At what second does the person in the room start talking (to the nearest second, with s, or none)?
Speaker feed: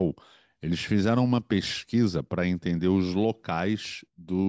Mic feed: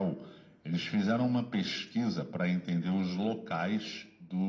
none